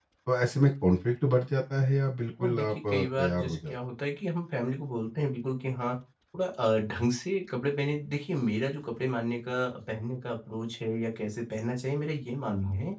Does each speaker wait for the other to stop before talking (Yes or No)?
No